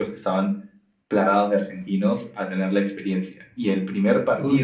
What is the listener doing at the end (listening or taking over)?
listening